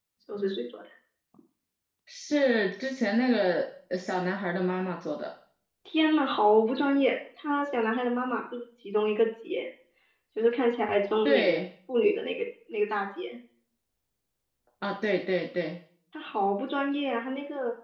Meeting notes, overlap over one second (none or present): none